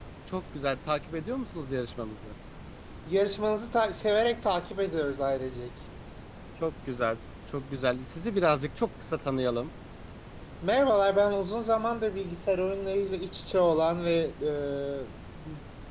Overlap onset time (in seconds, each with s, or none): none